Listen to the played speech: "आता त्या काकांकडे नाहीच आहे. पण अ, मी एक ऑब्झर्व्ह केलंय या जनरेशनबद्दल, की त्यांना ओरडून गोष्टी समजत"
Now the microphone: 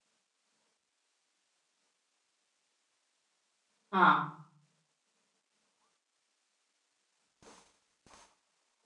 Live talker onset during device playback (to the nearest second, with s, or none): 4 s